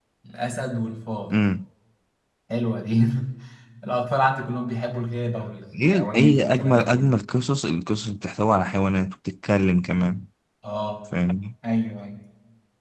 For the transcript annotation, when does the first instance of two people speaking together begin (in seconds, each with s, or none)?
5.7 s